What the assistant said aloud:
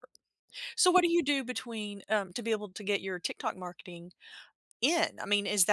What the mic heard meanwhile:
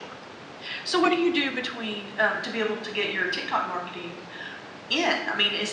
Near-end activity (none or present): none